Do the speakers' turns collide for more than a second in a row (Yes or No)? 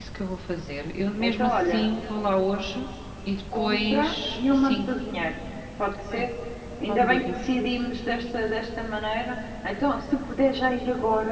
Yes